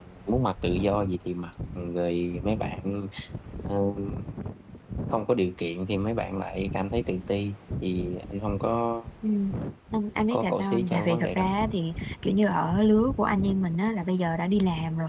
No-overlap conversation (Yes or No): No